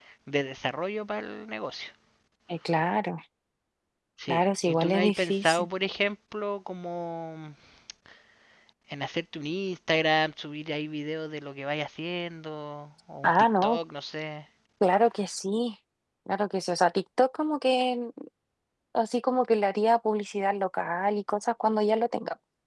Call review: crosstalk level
present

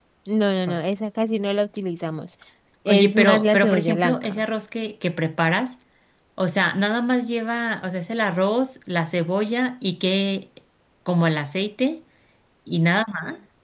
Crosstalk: present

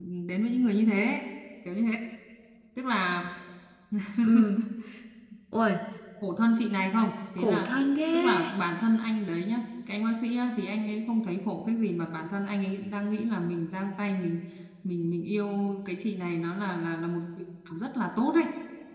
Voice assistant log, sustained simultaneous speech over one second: none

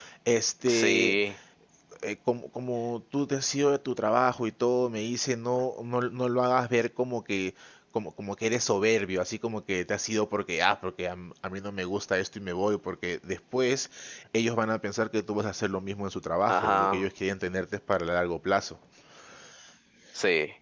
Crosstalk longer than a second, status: none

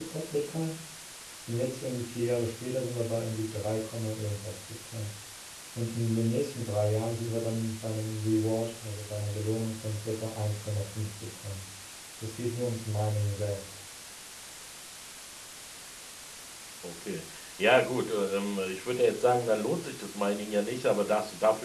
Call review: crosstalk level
none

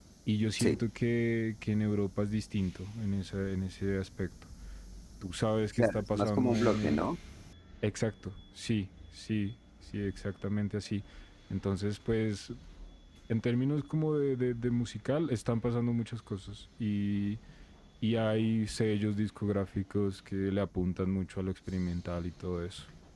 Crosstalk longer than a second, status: present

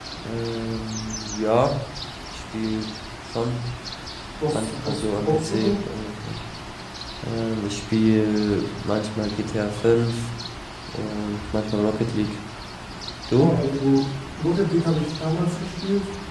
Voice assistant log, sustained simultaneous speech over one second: present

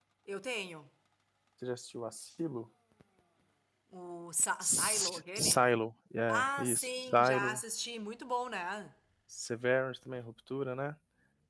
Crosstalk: present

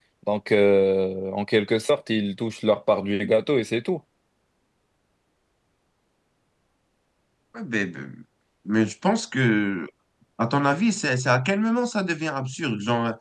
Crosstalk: none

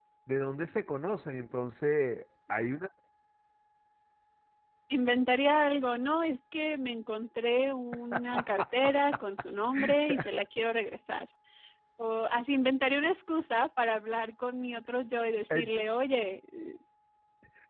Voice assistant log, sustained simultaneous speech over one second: none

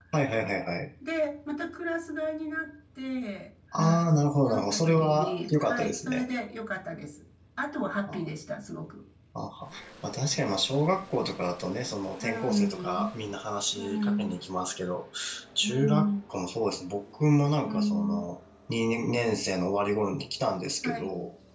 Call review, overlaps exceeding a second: present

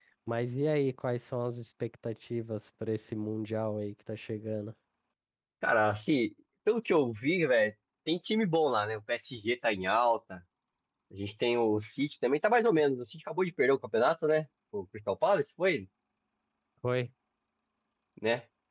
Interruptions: none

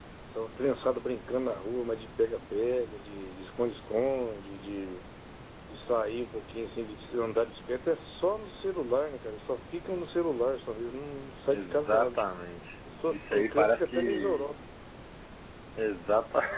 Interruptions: present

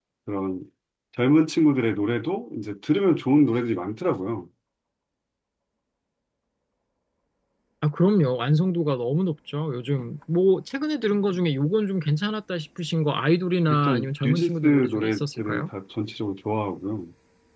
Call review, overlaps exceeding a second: present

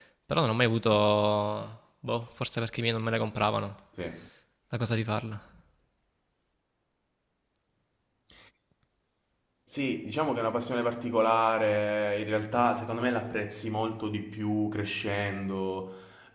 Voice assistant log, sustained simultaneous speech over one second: none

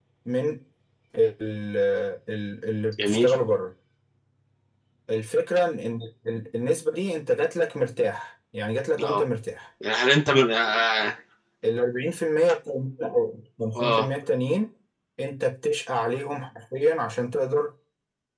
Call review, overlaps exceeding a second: none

